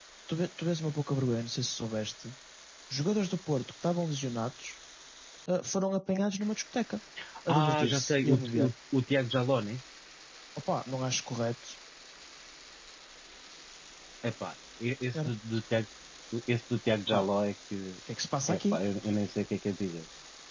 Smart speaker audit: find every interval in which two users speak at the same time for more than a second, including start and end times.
7.5-8.7

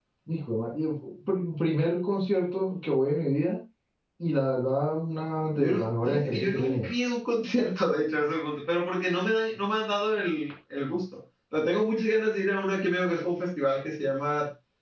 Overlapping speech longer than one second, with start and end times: 5.5-6.9

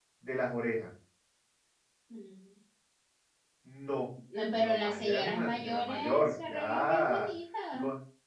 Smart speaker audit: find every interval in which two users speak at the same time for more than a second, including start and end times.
4.5-7.3

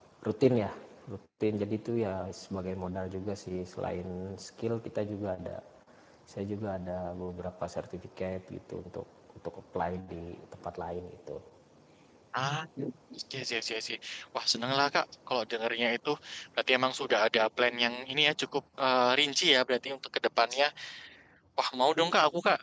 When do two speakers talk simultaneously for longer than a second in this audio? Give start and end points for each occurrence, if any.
none

